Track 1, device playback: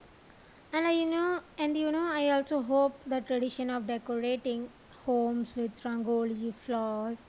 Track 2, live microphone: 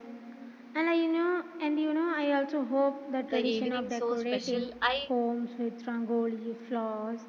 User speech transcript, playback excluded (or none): the evening so special. I